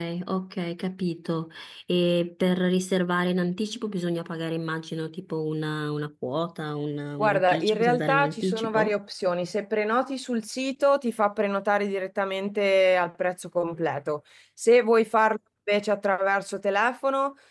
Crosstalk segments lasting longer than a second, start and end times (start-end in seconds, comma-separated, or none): 7.2-8.9